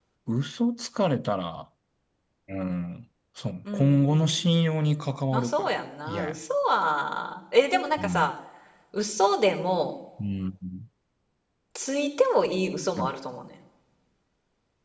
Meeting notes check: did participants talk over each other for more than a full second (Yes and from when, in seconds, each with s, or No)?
Yes, from 3.7 s